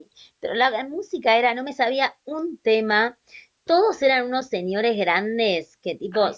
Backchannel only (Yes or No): Yes